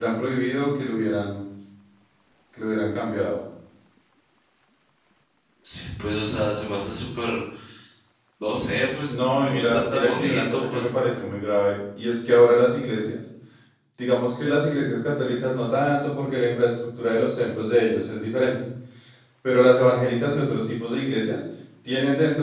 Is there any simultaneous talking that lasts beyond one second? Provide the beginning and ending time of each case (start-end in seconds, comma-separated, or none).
9.1-10.9